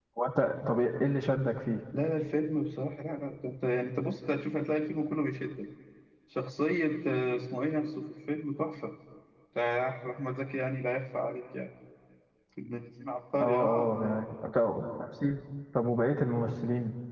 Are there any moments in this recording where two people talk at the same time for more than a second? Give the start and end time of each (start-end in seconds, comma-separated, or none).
none